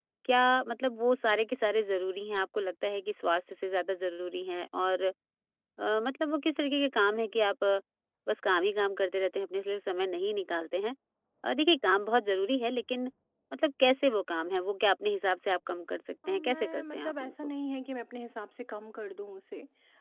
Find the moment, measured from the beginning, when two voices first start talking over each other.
16 s

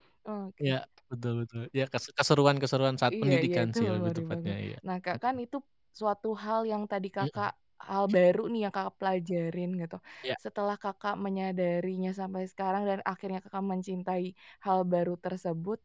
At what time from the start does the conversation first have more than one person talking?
3 s

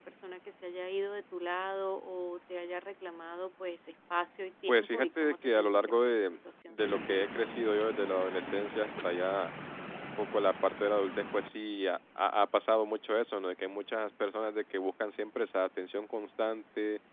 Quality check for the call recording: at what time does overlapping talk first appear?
5 s

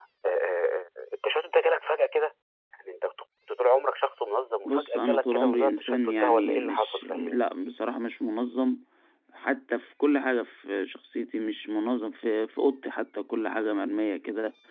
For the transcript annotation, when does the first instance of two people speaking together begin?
5 s

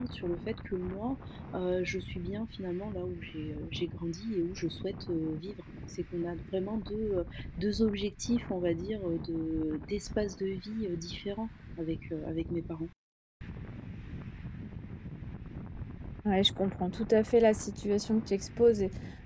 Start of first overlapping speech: none

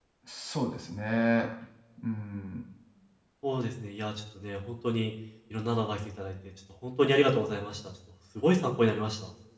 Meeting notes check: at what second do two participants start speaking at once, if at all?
none

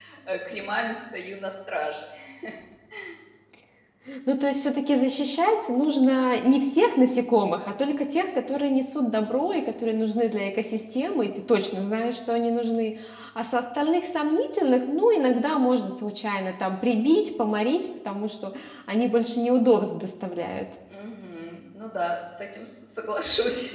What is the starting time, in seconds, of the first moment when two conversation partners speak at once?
none

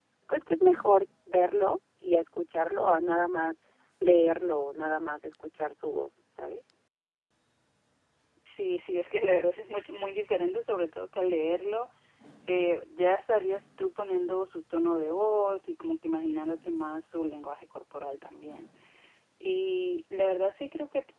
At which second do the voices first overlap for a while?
none

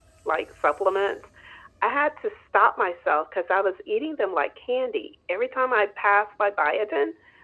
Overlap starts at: none

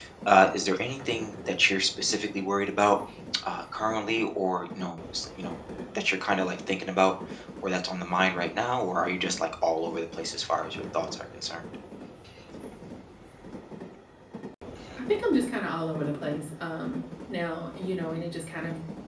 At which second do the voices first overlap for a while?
none

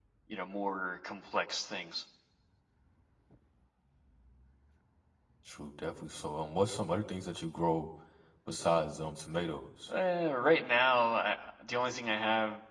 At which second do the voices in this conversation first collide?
none

